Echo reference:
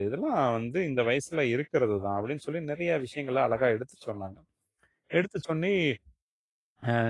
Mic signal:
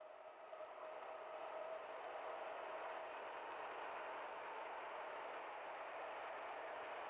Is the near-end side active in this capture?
No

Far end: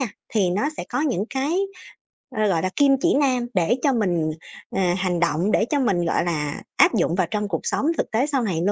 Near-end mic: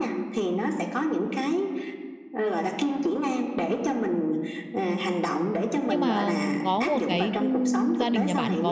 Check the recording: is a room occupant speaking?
Yes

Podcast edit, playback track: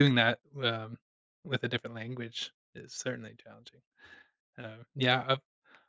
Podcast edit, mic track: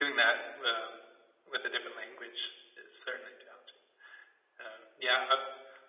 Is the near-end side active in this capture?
No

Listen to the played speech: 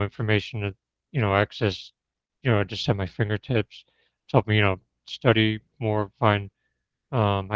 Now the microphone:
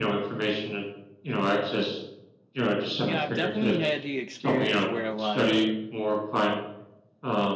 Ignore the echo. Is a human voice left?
Yes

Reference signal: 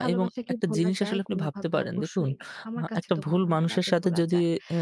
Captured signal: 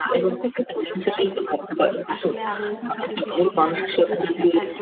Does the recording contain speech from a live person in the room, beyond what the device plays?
Yes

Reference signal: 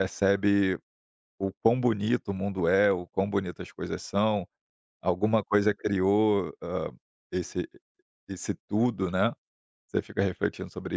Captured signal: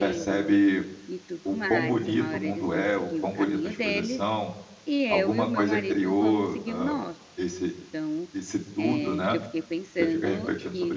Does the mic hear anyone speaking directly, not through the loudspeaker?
Yes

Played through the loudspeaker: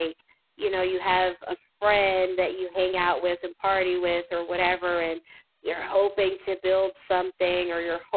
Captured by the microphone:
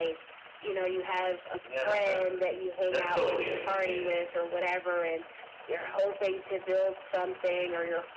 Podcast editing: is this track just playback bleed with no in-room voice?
No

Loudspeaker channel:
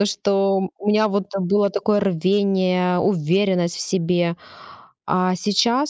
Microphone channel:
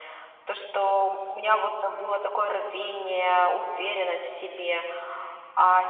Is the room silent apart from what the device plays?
Yes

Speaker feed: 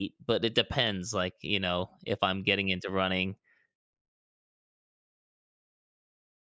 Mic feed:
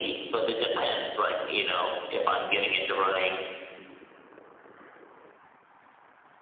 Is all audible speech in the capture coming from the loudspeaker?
Yes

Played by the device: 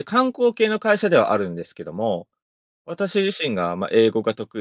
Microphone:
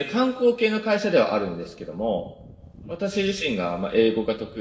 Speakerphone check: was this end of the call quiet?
Yes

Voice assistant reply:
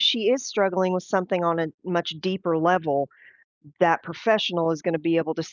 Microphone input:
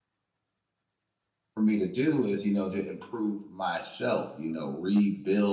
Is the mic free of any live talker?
No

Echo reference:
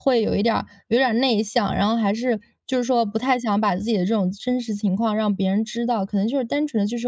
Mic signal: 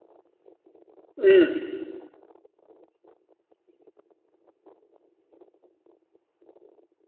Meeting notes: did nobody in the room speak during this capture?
No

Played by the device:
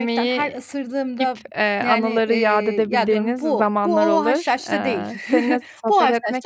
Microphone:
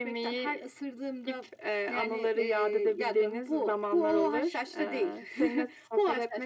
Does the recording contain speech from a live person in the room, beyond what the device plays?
No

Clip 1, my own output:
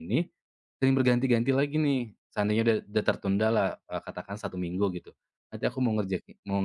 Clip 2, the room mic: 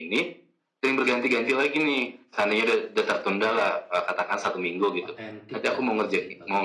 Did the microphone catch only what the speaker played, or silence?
No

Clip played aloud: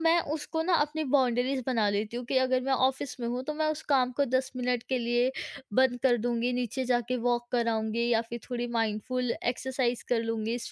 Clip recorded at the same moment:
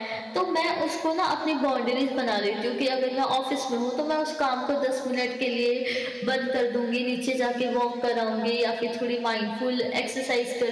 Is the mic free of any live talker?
Yes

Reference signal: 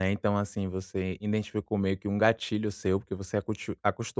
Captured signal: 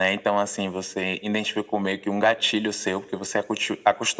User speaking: No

